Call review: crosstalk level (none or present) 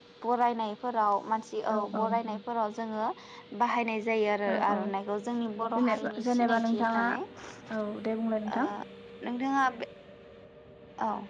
present